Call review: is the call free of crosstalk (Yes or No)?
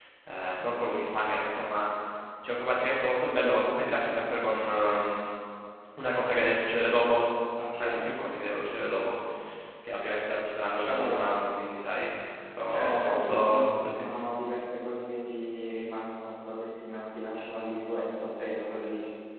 No